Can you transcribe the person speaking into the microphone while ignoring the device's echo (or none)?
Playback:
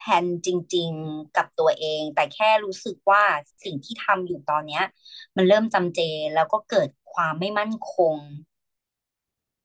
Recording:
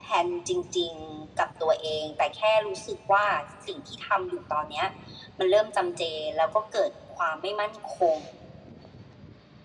none